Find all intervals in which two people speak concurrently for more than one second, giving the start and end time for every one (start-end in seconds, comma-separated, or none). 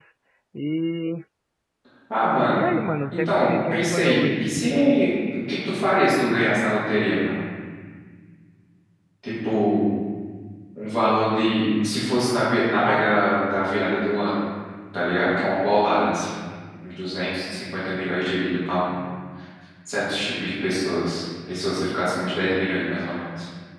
3.1-4.4